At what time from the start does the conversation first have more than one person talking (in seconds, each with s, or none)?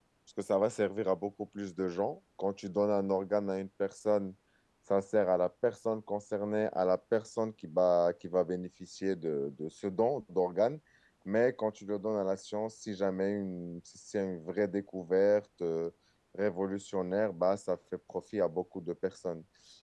none